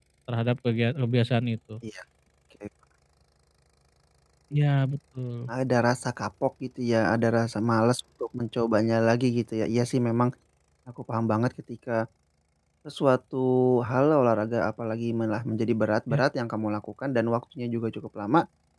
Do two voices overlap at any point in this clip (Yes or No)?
No